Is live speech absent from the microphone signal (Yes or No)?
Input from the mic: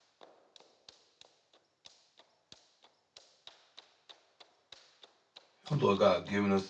No